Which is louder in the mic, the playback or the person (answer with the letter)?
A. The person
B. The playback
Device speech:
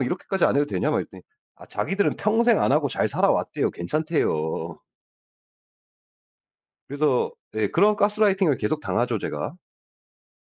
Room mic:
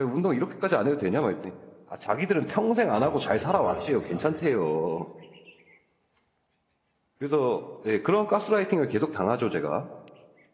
B